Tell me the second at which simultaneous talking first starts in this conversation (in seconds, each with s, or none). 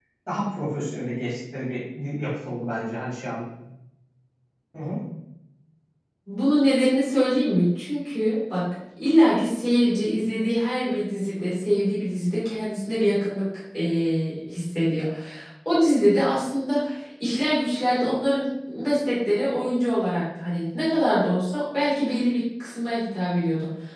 none